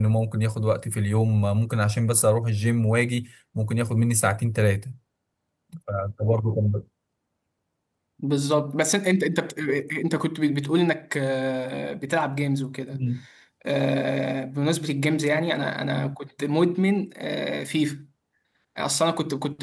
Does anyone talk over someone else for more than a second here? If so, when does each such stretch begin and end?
none

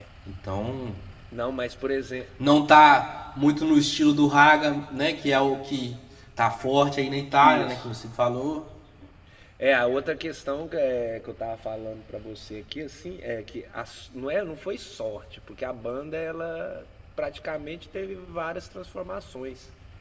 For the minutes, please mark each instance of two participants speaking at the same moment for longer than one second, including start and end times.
none

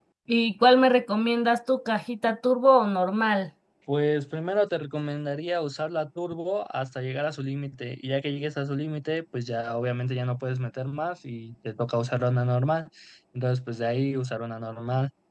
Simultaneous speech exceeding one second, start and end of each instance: none

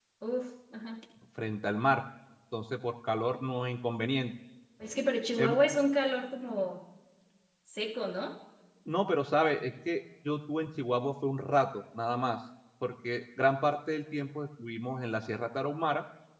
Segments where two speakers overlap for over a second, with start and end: none

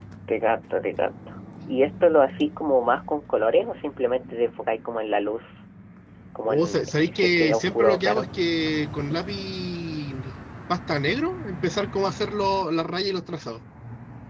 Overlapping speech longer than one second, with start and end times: 6.5-8.3

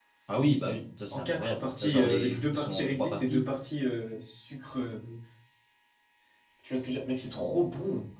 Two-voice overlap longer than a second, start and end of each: 1.1-3.4

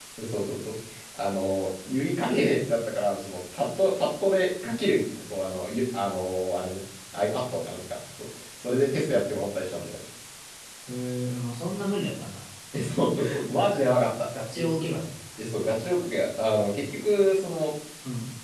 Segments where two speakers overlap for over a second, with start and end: none

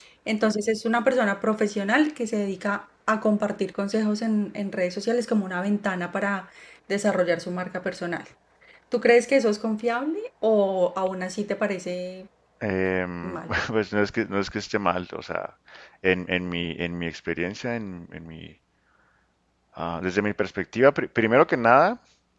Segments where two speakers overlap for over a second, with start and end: none

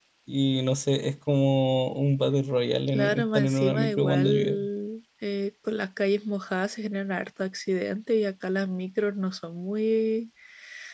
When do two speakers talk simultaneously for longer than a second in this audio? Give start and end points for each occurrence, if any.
2.9-4.6

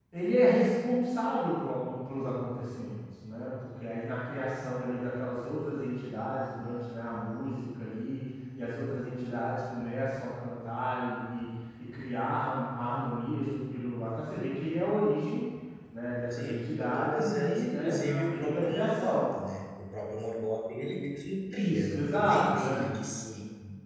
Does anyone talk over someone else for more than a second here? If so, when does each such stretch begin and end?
16.3-19.3, 21.5-22.9

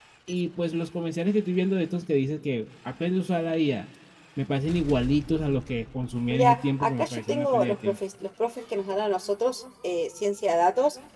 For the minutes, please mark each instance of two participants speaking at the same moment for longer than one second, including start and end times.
6.3-8.0

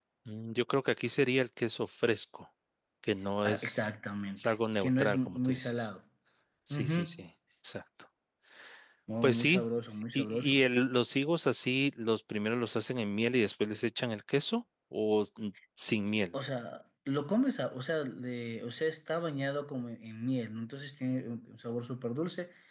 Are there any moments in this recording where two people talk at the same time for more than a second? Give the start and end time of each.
4.4-5.9

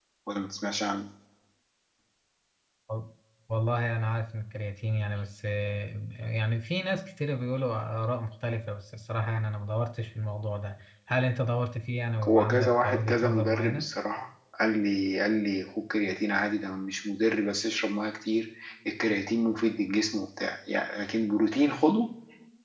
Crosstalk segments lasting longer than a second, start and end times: 12.3-13.9

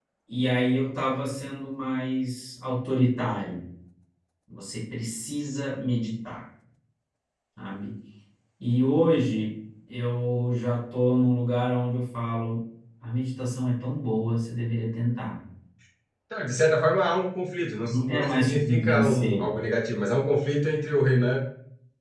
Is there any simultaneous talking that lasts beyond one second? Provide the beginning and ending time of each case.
17.9-19.4

